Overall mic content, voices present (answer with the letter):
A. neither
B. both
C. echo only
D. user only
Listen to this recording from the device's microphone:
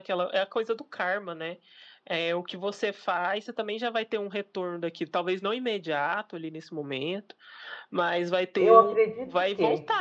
B